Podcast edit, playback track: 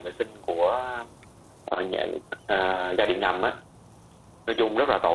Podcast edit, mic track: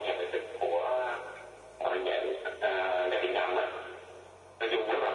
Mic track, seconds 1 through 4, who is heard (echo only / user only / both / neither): echo only